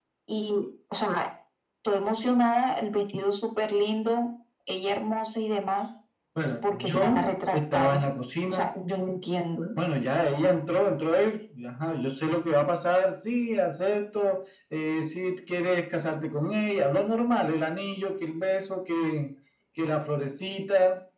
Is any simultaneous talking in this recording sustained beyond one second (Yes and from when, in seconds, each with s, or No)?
Yes, from 6.7 s